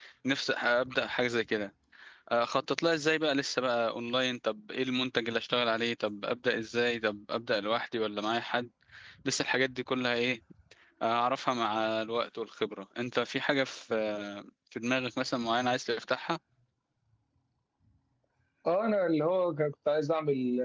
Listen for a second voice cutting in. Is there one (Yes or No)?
No